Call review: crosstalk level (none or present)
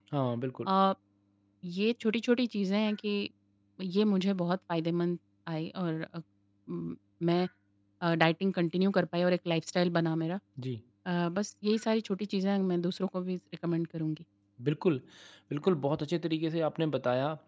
none